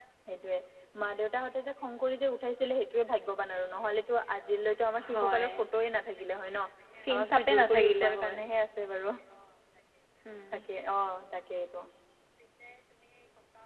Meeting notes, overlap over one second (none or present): present